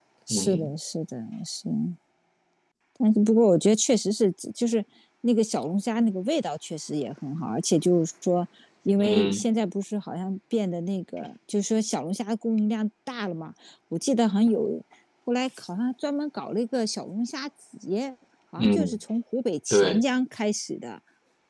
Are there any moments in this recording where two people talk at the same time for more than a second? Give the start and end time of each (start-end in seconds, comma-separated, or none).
none